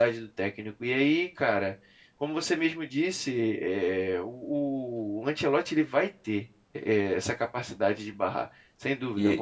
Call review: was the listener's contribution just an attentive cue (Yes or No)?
No